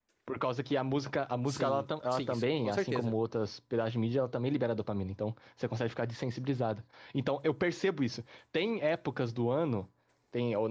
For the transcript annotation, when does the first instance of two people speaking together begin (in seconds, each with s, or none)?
1.5 s